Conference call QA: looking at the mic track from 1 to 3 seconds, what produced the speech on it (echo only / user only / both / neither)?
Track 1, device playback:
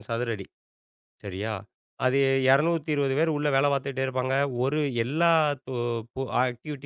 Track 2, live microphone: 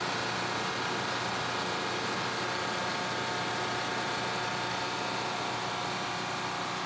neither